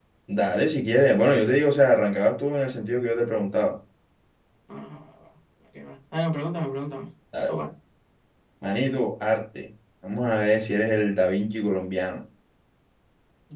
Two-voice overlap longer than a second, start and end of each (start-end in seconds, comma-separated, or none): none